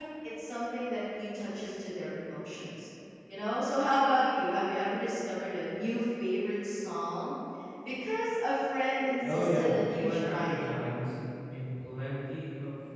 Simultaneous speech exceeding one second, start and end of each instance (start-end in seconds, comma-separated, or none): 9.2-10.7